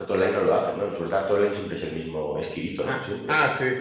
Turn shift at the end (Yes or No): Yes